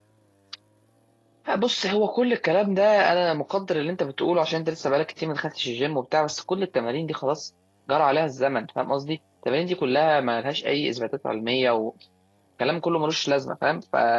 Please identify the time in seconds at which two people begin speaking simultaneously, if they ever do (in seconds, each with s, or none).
none